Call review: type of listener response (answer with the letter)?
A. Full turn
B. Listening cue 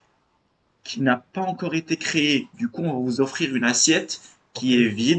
B